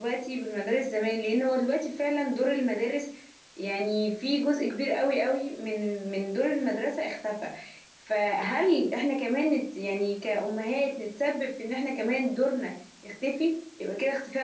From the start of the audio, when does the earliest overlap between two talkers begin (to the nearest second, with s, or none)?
none